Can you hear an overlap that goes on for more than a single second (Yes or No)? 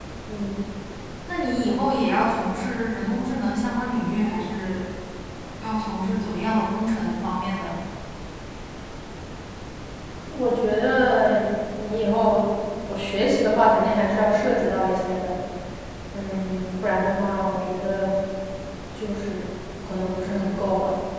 No